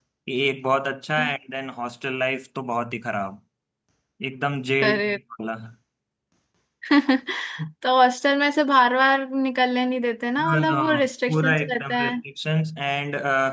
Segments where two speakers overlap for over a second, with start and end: 10.4-12.2

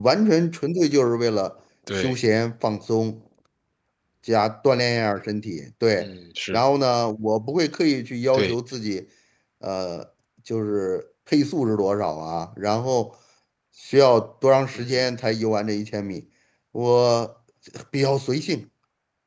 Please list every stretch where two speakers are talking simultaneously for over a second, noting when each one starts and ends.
none

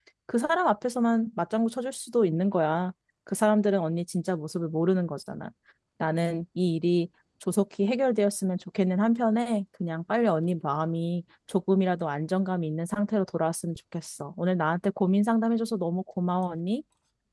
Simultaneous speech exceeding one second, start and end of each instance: none

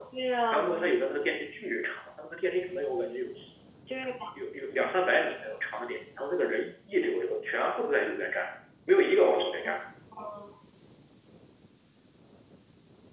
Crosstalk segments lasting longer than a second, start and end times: none

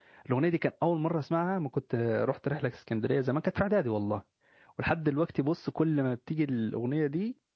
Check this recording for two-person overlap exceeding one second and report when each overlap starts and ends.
none

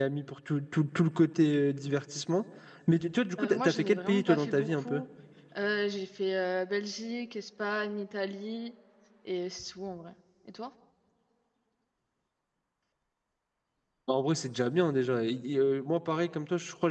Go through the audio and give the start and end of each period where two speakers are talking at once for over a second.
3.4-5.0

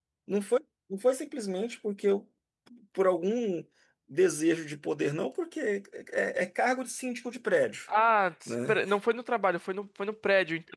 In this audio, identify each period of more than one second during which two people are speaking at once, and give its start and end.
none

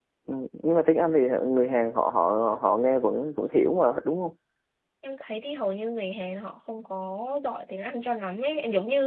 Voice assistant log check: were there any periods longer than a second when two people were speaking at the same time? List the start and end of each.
none

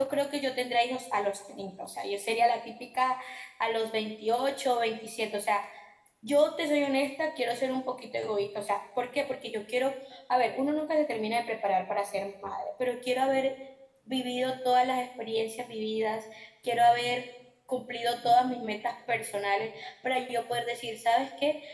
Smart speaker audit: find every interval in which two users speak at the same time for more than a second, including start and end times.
none

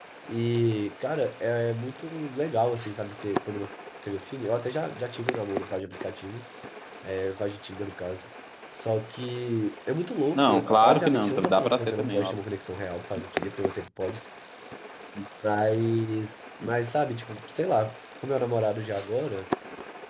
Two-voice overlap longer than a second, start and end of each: 10.3-12.3

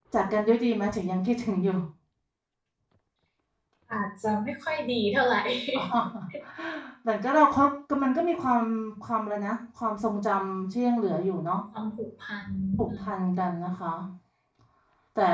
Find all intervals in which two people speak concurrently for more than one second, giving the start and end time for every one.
none

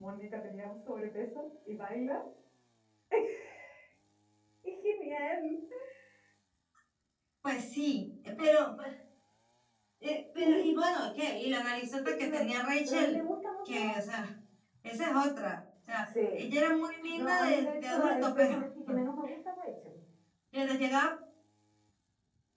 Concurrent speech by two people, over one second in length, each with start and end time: 17.1-18.5

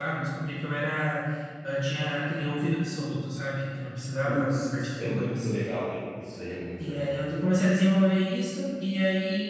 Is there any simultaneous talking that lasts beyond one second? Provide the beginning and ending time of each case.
4.2-5.5

